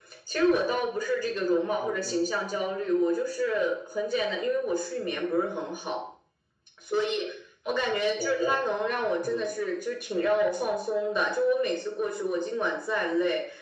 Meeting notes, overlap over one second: none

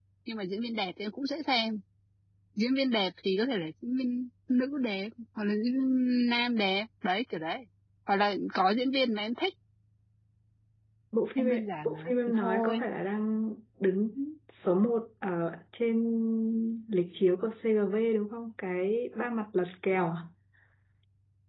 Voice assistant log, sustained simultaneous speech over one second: present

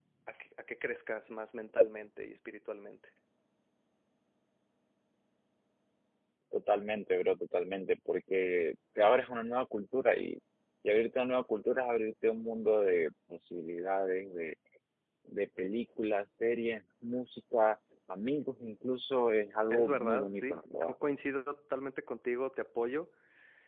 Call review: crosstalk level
present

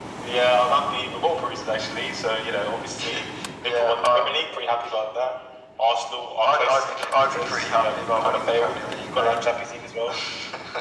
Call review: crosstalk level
present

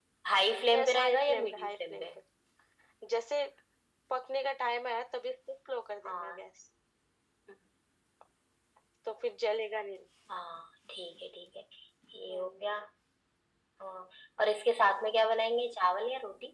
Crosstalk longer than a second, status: present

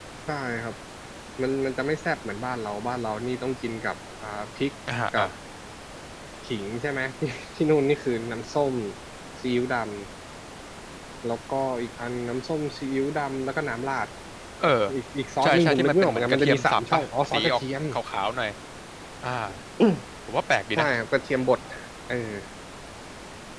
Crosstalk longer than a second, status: present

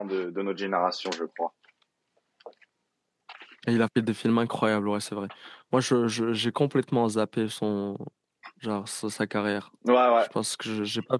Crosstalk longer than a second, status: none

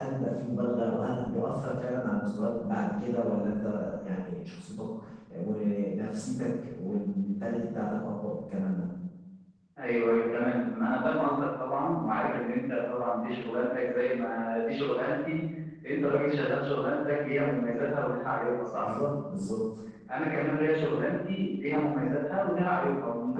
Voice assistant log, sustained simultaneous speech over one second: none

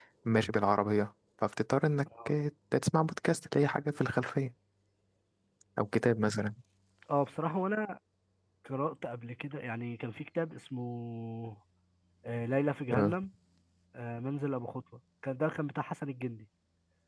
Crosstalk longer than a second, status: none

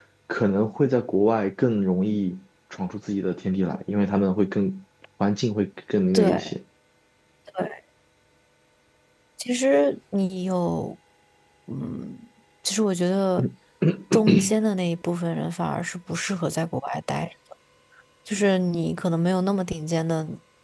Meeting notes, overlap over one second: none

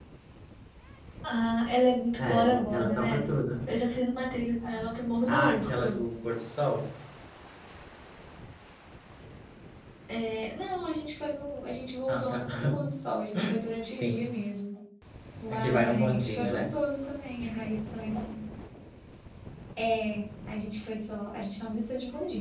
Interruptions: present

